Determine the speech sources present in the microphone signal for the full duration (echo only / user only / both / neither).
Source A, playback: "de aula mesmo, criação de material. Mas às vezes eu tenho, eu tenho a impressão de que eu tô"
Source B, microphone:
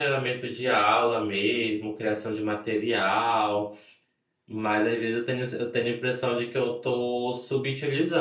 echo only